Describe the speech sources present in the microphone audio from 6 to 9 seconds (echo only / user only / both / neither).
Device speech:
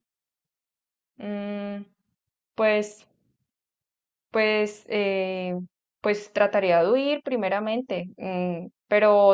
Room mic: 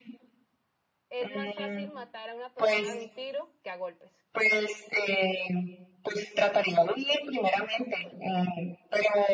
echo only